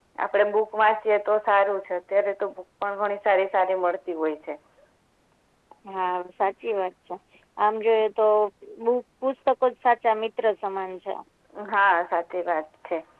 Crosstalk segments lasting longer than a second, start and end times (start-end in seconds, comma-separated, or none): none